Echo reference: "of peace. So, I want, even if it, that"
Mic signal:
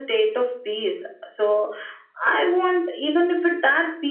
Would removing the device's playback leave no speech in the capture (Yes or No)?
Yes